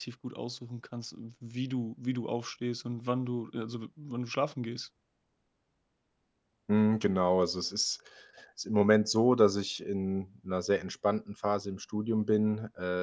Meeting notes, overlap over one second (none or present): none